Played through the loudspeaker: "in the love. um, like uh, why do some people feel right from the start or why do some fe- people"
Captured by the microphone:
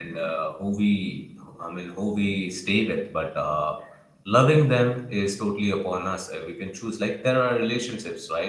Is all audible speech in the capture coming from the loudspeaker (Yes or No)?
No